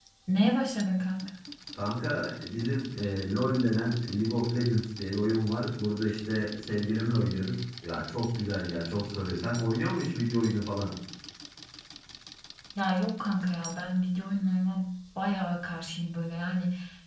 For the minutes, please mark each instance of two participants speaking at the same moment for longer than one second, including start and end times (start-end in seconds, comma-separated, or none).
none